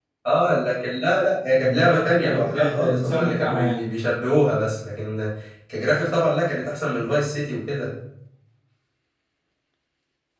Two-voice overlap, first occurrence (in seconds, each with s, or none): 1.6 s